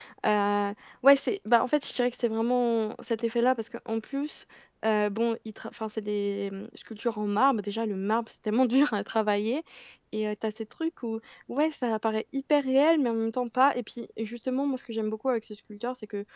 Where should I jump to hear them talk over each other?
none

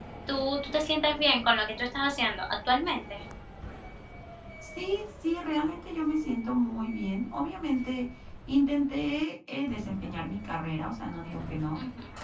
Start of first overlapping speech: none

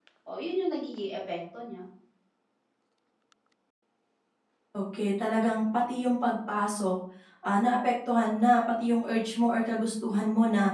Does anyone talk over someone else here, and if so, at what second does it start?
none

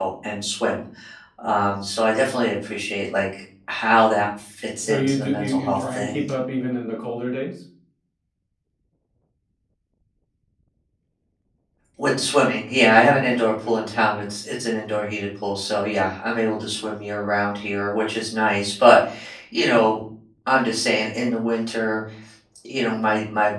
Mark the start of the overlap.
4.8 s

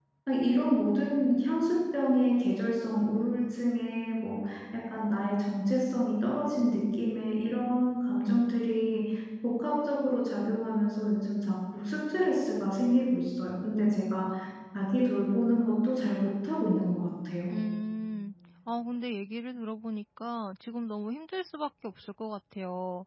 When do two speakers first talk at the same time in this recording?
none

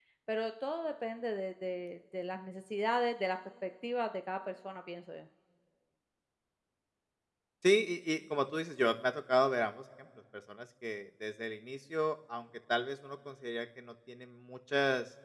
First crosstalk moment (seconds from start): none

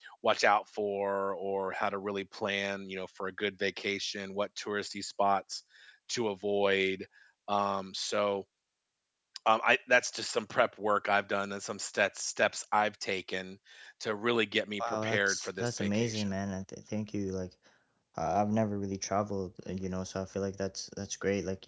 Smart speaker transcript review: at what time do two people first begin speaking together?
14.8 s

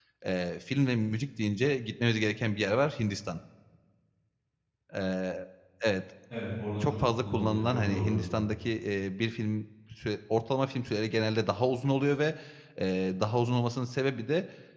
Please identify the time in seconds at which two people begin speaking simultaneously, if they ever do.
6.8 s

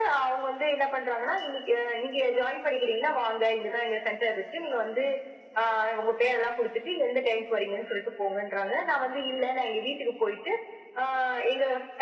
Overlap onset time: none

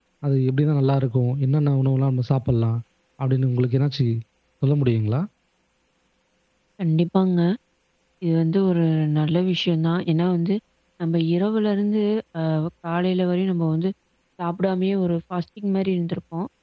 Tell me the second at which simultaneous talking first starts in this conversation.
none

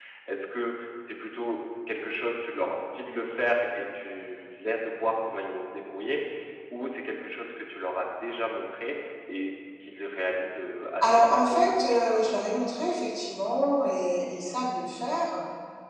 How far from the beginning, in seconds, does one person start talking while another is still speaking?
11.0 s

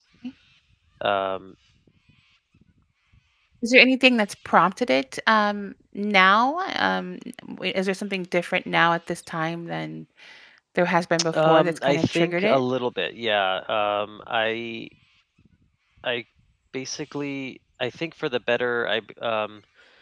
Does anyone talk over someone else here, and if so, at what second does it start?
11.3 s

